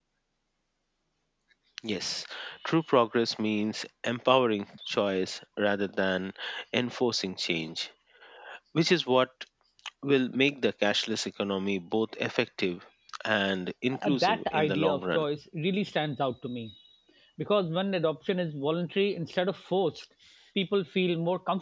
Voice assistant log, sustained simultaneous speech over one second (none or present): present